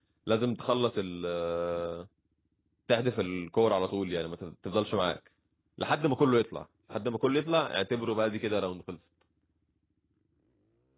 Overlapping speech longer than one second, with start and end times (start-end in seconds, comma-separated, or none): none